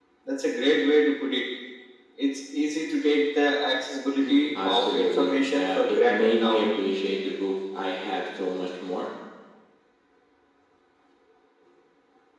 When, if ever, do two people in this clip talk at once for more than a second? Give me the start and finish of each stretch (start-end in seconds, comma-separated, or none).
4.2-6.6